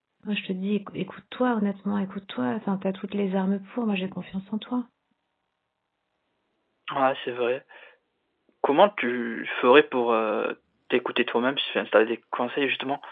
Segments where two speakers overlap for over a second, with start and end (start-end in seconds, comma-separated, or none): none